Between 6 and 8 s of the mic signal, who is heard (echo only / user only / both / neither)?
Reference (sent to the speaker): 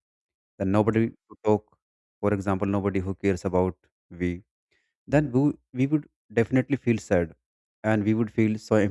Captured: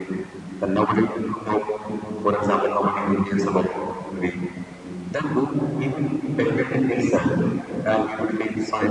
echo only